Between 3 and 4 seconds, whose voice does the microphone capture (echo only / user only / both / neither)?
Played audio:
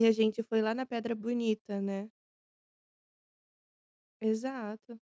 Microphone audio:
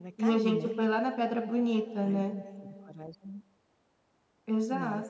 user only